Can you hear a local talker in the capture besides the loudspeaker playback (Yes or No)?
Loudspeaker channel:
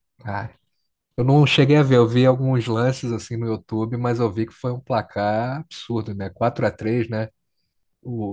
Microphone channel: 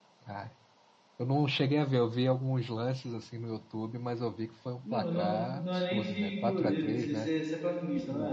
Yes